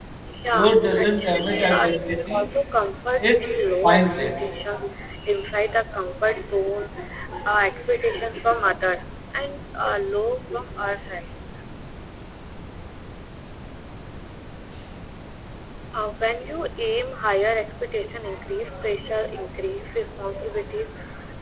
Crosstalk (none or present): present